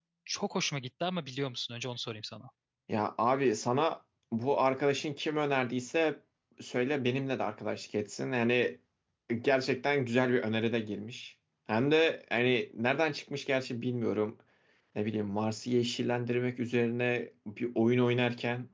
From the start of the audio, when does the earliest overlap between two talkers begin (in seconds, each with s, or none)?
none